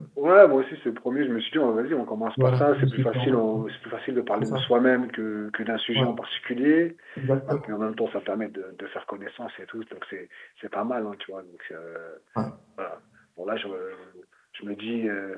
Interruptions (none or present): present